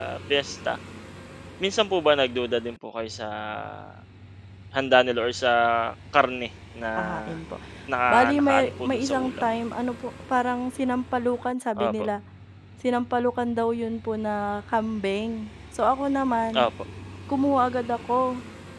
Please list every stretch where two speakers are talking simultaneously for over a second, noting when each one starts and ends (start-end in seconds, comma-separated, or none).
8.1-9.4